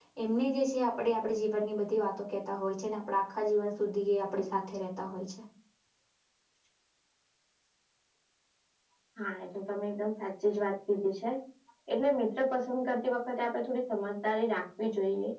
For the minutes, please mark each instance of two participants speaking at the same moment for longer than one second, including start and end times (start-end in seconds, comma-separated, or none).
none